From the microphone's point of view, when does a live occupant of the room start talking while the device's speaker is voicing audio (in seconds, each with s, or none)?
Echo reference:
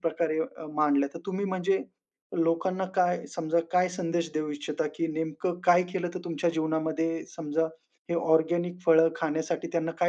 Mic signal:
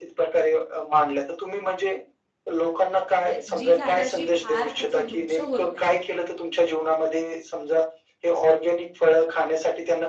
3.2 s